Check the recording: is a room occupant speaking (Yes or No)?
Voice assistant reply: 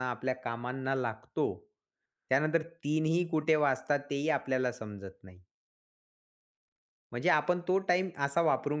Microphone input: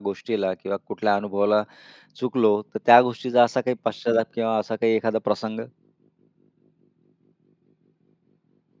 Yes